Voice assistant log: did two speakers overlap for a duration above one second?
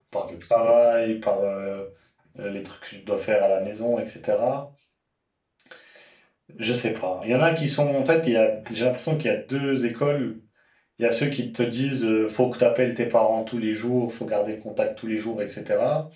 No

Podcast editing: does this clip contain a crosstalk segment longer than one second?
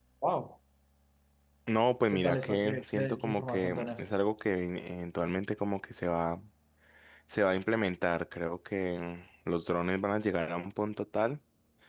Yes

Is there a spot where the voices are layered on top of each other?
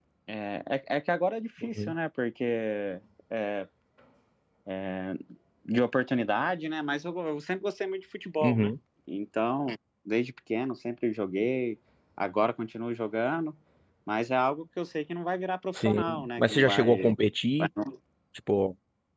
Yes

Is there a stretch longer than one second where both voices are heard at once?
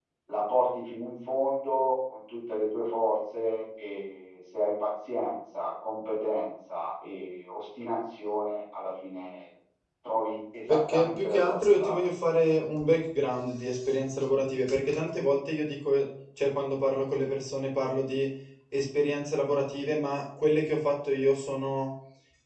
Yes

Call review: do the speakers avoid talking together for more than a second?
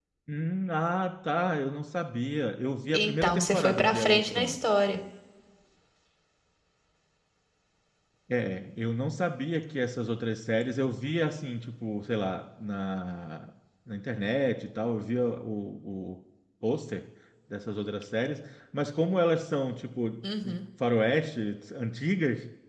No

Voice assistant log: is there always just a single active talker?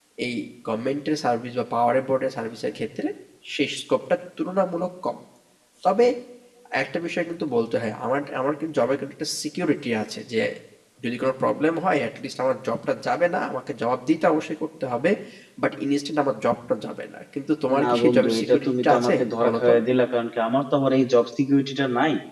No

